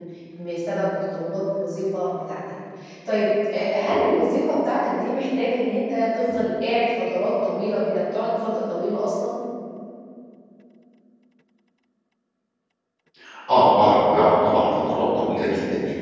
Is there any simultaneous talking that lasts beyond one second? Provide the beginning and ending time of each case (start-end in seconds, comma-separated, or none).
none